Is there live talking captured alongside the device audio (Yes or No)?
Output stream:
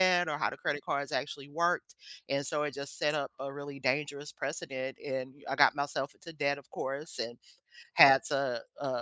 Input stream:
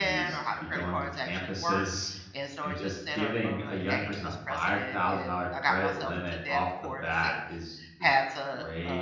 Yes